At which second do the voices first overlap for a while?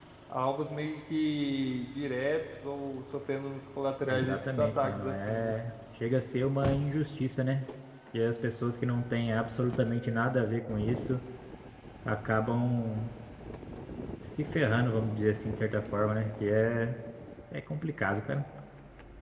4.0 s

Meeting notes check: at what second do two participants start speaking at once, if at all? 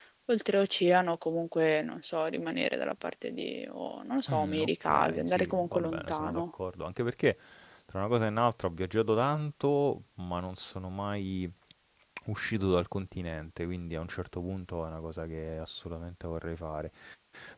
4.3 s

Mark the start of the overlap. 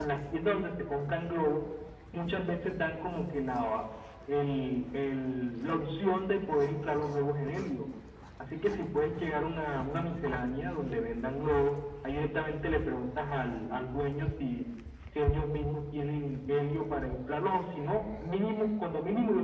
none

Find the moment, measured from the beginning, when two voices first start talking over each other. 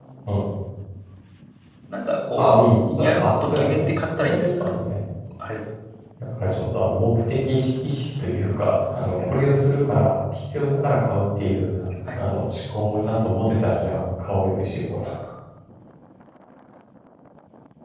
2.4 s

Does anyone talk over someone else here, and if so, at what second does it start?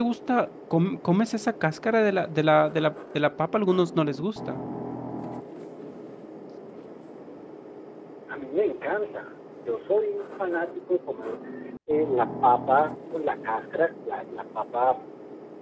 none

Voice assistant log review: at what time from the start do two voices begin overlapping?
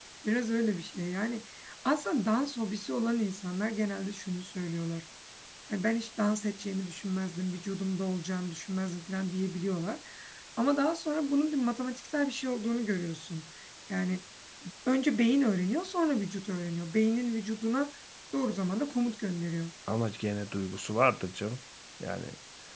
none

